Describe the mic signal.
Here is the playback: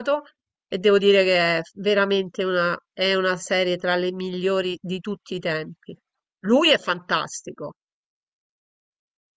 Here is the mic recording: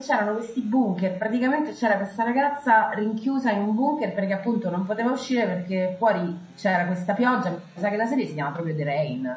user only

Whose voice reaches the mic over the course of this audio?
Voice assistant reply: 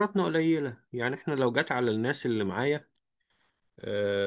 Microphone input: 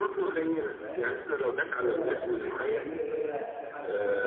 both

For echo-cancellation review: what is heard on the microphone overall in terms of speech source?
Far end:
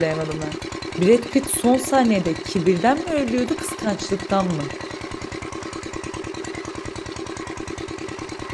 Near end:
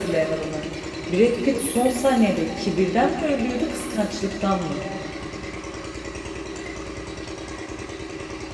echo only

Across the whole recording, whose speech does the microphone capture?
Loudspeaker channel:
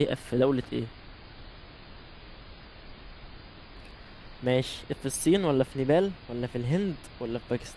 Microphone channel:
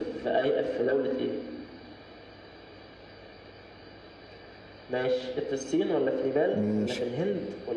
both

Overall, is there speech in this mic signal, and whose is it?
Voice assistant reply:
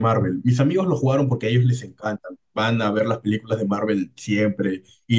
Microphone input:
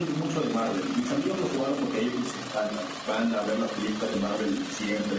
echo only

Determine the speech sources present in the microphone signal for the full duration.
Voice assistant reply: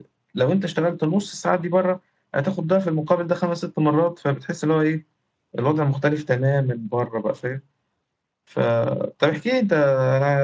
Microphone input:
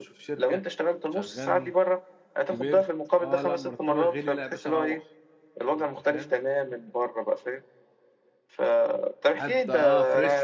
both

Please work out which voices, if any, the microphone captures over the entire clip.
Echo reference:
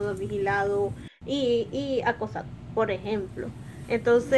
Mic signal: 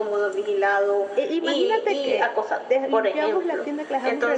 both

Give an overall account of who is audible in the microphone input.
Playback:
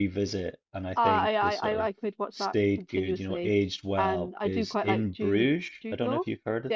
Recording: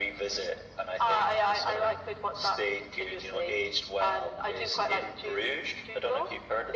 echo only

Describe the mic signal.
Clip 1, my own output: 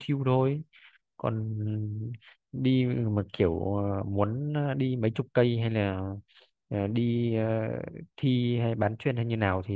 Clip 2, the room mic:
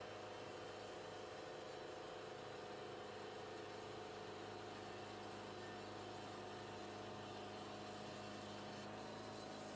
neither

